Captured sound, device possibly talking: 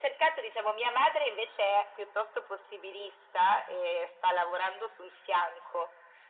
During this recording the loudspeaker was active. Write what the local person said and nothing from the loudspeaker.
none

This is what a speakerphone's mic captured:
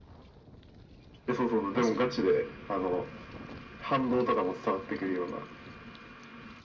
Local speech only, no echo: マジ

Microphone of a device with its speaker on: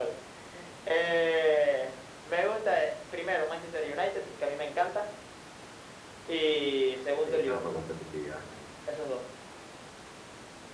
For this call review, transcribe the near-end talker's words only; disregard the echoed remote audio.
Te echan para competitividad.

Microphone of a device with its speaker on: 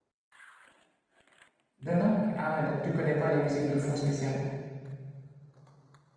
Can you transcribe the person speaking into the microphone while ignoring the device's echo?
De nom, ouais. Ah ouais, donc tu connais pas les musiques de fond spécialement.

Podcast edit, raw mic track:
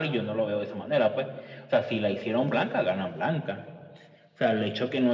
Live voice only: none

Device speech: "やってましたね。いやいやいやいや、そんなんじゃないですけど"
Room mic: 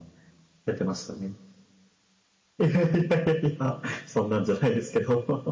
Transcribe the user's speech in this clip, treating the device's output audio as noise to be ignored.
none

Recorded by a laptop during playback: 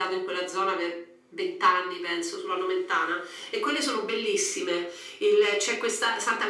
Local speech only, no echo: none

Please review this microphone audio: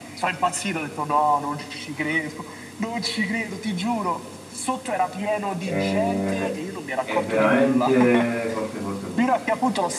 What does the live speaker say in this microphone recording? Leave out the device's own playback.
Eh, è veramente forte, forte, forte.

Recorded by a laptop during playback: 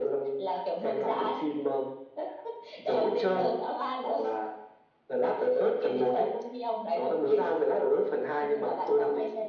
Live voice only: none

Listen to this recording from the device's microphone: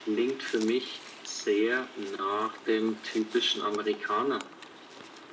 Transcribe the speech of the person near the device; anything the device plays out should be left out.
none

